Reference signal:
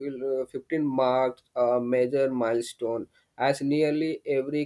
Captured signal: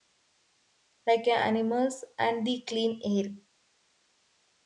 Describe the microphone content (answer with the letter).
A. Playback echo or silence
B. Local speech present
B